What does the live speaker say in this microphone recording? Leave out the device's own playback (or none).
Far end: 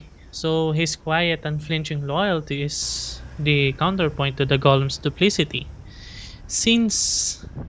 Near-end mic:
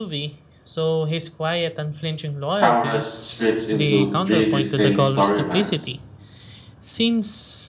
towers splits into three distinct storylines.